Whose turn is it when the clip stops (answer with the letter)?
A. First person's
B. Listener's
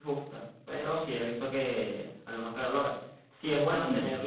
A